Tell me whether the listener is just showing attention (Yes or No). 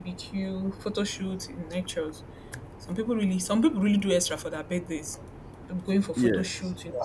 Yes